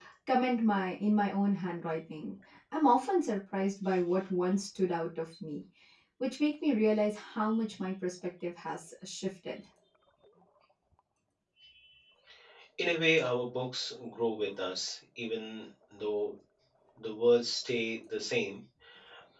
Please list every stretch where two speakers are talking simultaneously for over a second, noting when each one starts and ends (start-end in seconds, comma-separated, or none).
none